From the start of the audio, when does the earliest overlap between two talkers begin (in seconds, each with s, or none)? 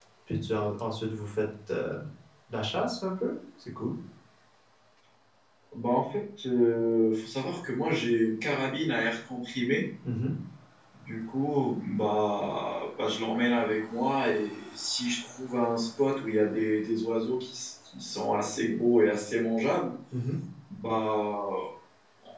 none